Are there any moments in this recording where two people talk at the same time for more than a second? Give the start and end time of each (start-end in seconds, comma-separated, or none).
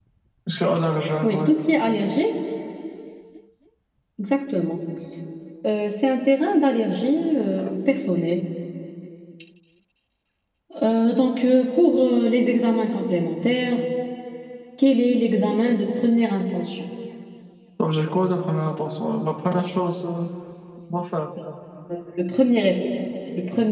none